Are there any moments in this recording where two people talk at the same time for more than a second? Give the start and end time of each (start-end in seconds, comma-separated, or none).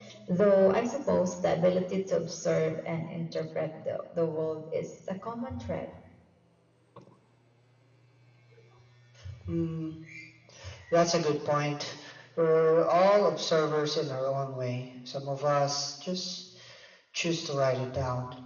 none